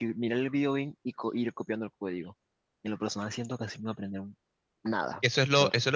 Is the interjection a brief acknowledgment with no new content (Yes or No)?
No